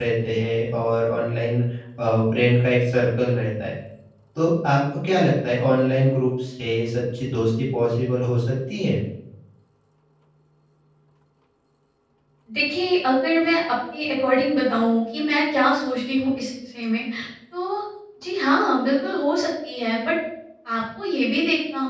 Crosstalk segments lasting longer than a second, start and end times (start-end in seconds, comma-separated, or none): none